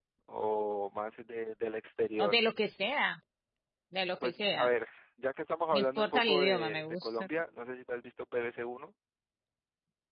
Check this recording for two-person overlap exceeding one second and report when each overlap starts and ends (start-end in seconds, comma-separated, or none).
5.7-7.3